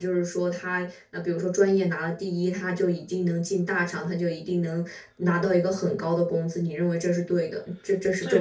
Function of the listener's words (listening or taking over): taking over